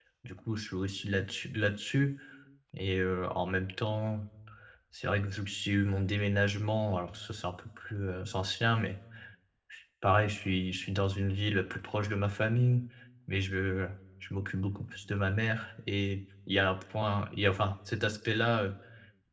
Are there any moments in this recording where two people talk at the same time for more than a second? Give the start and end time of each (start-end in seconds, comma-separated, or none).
none